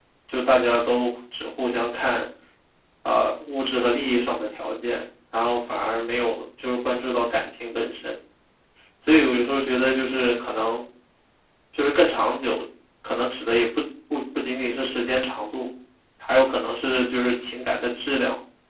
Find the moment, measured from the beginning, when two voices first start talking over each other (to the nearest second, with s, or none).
none